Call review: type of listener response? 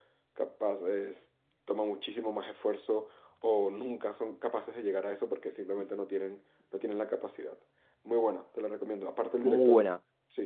listening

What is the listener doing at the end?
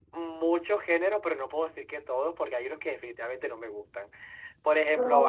listening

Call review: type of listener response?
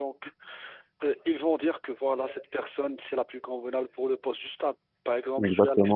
listening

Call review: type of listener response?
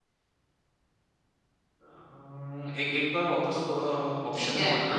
taking over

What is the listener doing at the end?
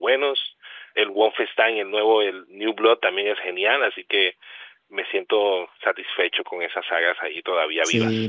taking over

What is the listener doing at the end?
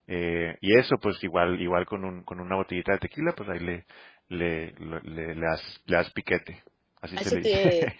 taking over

